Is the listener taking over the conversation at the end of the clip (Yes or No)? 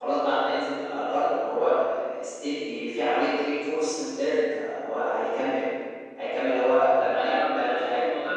Yes